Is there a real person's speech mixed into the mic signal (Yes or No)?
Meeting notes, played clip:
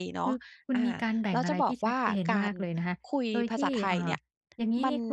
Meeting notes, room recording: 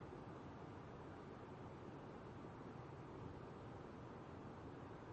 No